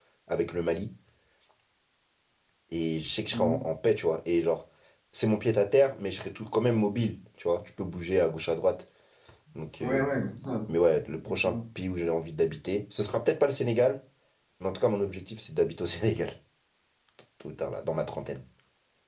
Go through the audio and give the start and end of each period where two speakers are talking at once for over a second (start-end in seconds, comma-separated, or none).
none